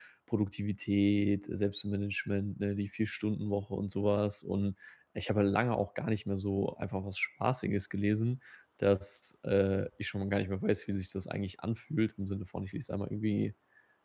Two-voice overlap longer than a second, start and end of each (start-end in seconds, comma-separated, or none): none